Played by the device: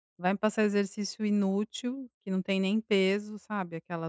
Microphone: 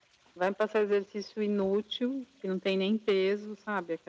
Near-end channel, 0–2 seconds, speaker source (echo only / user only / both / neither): echo only